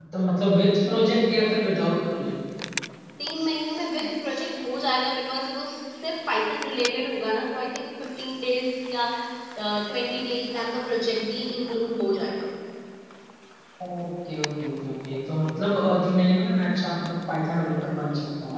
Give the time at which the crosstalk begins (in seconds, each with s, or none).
none